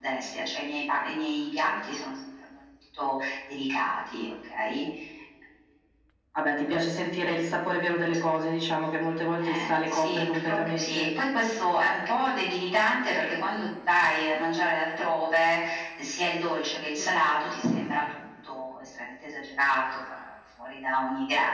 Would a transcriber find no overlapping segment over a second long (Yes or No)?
No